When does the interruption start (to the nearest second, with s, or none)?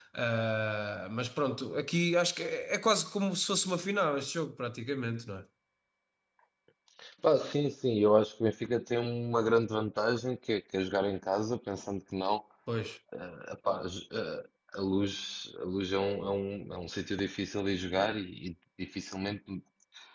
none